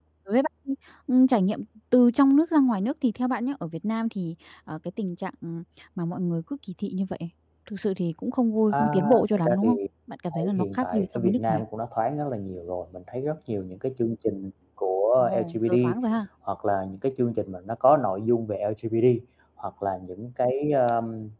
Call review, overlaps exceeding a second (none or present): present